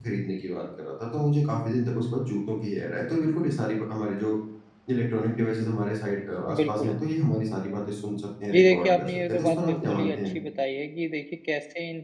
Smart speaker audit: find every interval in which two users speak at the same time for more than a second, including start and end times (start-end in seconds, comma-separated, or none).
8.5-10.3